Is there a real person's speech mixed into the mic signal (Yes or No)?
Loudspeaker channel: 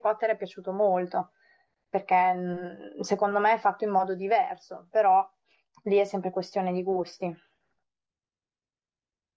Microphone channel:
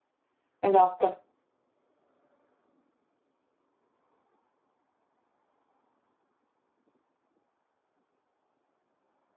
Yes